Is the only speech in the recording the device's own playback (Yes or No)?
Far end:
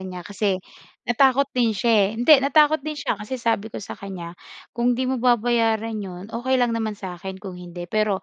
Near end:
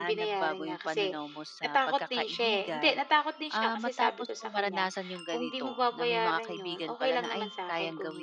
No